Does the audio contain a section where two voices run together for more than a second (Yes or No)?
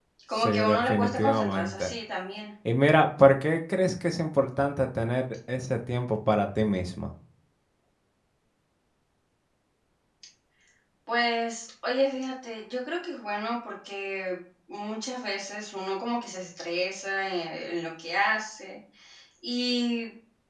Yes